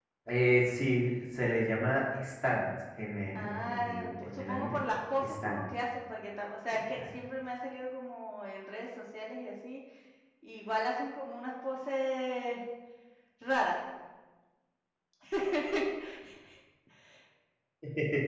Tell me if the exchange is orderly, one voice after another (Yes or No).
No